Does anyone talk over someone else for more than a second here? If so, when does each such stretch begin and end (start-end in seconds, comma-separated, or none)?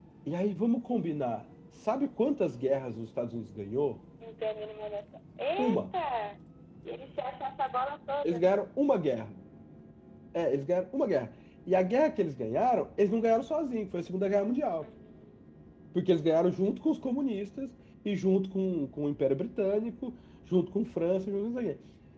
none